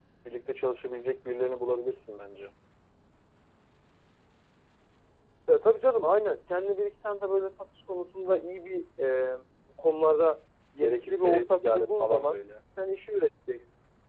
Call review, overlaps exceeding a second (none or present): present